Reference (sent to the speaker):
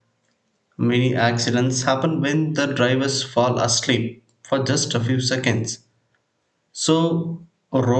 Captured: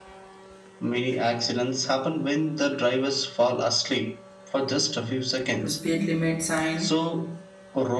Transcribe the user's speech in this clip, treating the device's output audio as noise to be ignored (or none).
to speed limit sign